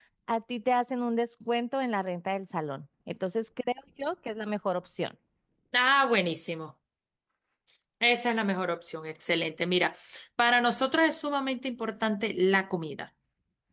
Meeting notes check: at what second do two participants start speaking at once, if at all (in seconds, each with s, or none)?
none